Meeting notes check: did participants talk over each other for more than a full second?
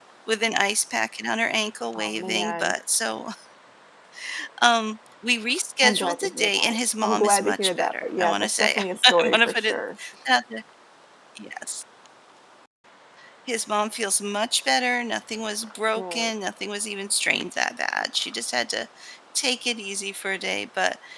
Yes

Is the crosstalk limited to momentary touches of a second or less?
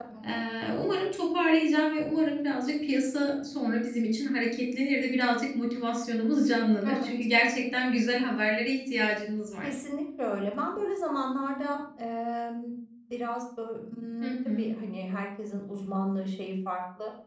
Yes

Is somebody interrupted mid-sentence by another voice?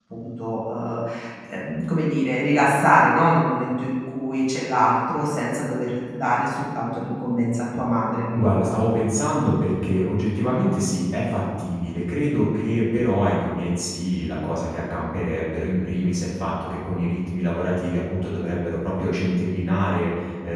No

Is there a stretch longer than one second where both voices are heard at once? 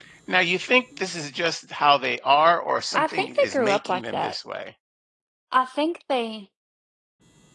Yes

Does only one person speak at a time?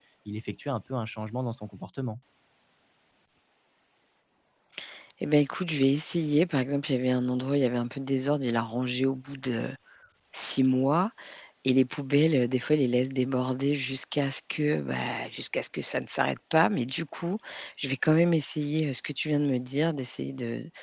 Yes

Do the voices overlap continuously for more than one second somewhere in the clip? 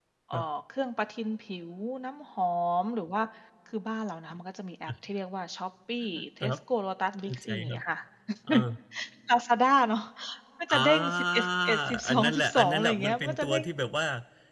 Yes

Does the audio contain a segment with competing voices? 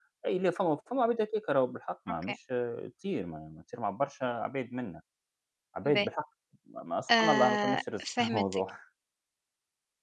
Yes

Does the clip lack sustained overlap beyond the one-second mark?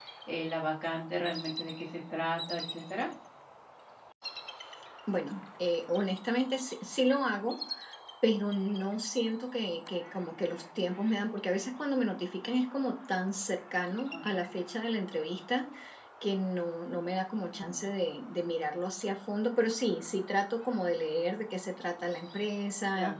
Yes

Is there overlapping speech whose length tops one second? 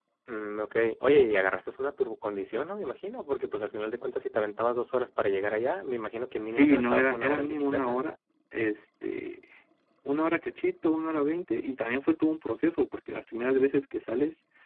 Yes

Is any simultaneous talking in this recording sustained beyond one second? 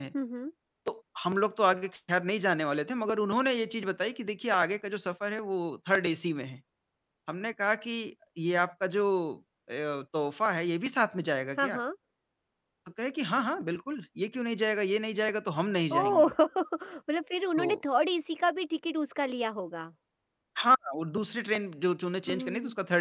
No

